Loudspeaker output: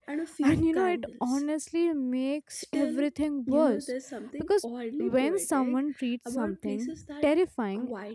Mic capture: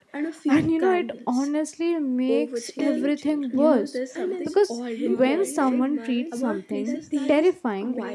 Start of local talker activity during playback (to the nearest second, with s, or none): 2 s